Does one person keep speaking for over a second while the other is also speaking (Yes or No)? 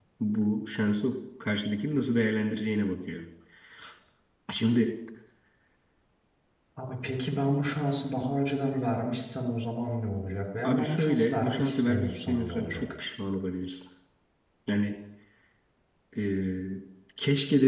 Yes